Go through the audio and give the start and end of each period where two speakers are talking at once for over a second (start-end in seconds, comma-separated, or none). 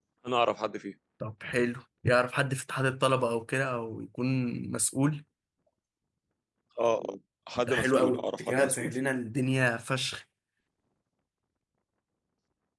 7.6-9.0